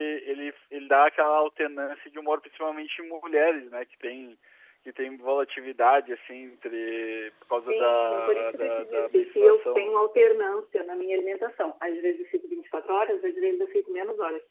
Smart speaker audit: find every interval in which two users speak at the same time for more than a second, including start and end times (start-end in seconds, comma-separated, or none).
7.7-10.0